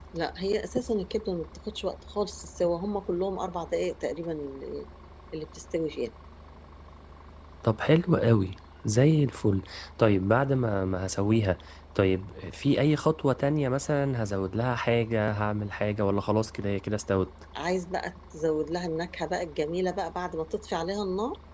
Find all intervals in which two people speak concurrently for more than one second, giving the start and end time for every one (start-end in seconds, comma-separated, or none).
none